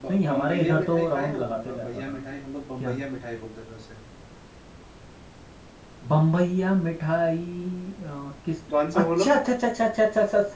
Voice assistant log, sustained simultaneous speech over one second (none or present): present